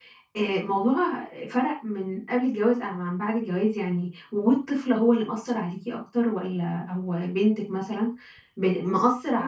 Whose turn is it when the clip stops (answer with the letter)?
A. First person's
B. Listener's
A